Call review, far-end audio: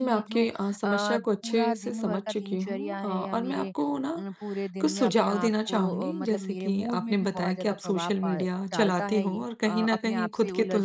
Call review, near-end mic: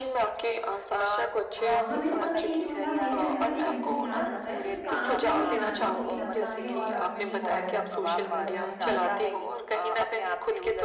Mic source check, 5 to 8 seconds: both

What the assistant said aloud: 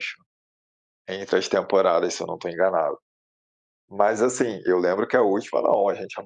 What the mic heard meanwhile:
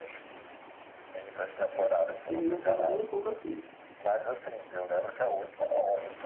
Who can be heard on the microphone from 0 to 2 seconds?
echo only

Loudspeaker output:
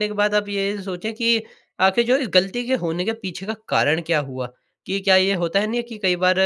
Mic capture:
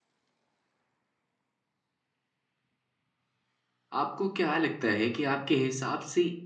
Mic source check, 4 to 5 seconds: user only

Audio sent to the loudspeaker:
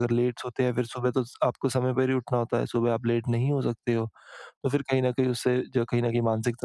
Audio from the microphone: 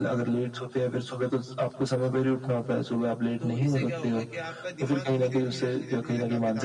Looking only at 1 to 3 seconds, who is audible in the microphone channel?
echo only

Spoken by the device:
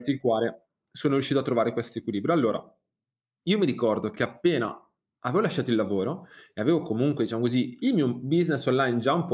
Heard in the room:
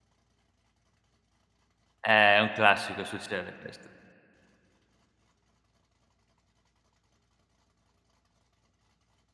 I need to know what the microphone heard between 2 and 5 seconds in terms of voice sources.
user only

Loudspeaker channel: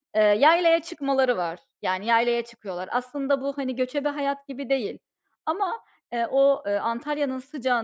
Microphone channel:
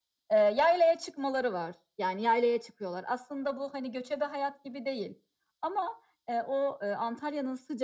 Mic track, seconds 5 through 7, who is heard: echo only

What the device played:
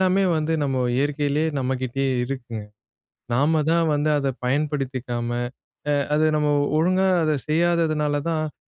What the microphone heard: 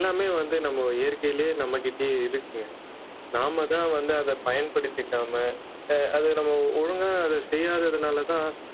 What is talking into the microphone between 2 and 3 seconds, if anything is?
echo only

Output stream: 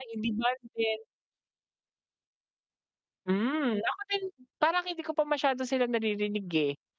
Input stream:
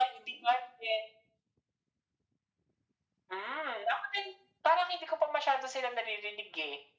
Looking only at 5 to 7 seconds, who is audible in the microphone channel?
echo only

